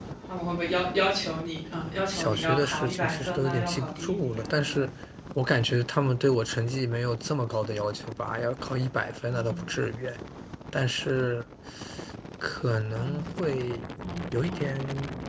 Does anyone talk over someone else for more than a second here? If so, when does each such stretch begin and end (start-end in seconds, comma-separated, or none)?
2.1-4.9